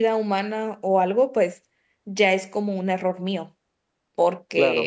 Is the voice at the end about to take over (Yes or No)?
No